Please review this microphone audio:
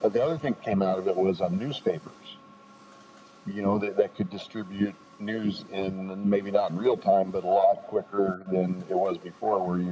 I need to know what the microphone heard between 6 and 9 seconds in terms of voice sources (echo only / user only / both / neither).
echo only